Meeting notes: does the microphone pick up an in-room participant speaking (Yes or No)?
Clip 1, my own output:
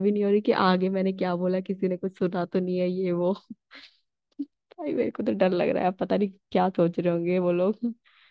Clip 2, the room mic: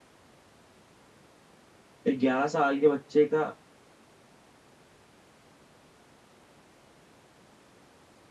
Yes